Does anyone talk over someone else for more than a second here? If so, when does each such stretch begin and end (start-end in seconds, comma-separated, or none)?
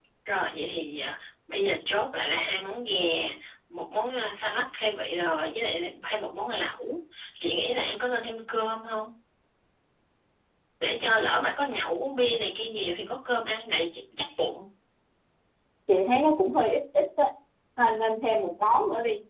none